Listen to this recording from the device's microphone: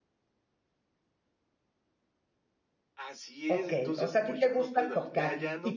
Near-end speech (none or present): present